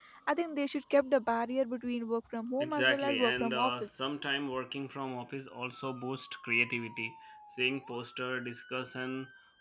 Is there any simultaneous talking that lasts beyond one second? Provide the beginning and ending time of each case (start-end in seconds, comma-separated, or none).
2.6-3.9